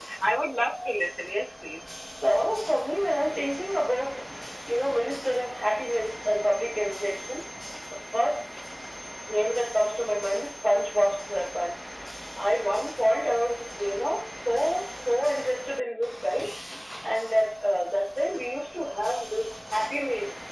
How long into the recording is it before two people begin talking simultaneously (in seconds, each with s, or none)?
none